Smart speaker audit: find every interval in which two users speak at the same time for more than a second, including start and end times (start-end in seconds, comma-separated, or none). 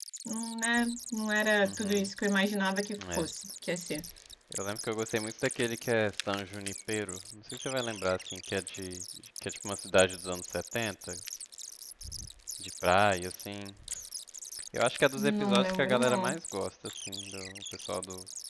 15.2-16.4